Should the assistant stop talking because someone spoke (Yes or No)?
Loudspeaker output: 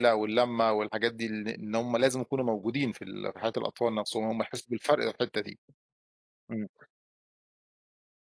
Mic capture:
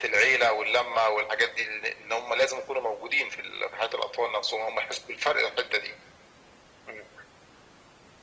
No